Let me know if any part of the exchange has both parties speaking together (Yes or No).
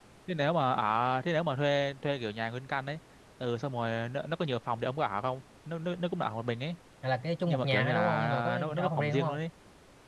Yes